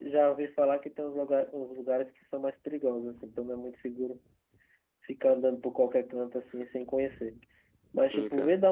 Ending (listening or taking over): listening